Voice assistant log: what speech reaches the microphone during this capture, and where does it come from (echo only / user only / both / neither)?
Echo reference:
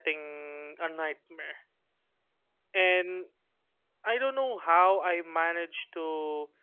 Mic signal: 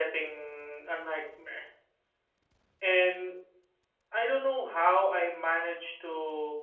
echo only